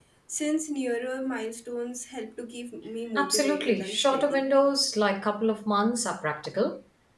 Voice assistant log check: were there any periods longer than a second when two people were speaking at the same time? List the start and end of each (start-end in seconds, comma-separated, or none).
3.2-4.5